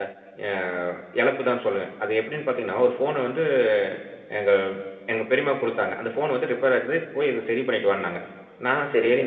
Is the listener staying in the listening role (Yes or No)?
Yes